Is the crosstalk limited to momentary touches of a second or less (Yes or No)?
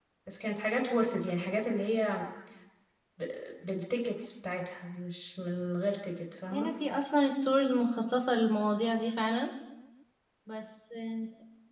Yes